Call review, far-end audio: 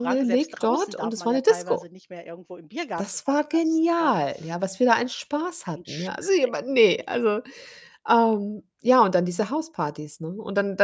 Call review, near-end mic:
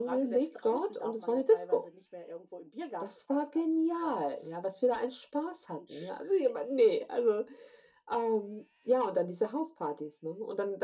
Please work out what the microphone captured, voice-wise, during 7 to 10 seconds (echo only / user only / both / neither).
echo only